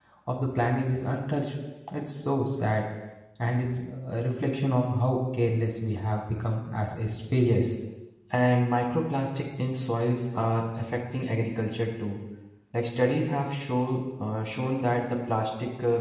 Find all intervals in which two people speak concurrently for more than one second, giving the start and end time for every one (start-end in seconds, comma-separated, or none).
none